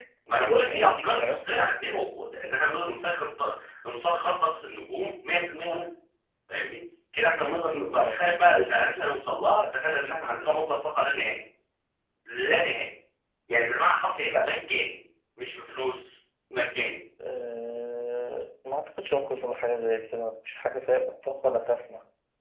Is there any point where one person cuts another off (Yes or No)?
Yes